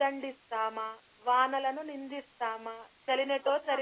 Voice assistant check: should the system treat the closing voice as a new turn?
No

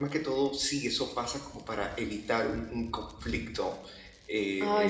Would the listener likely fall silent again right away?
Yes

